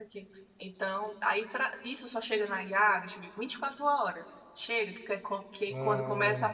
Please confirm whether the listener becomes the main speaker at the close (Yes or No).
No